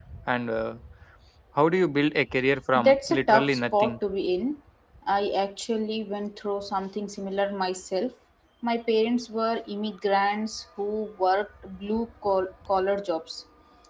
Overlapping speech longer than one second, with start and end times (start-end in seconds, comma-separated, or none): 2.8-4.0